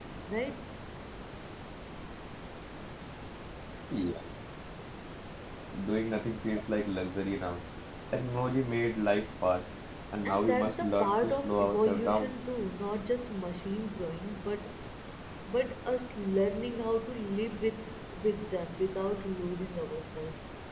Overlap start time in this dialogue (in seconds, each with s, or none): 10.2 s